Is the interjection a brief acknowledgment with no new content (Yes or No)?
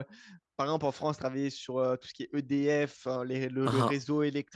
Yes